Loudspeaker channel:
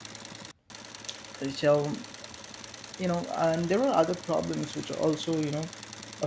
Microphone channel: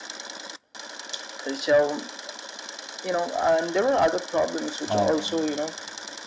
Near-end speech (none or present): present